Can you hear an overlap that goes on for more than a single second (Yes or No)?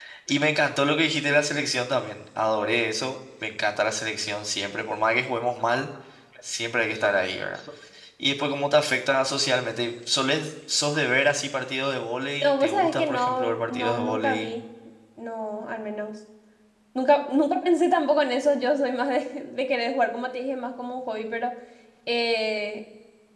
Yes